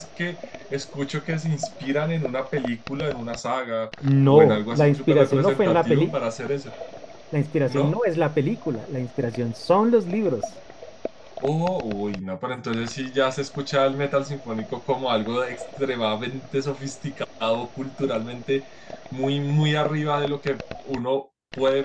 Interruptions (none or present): present